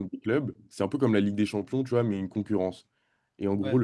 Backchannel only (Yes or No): Yes